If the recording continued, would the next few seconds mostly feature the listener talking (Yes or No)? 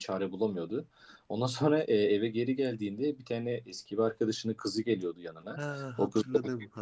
Yes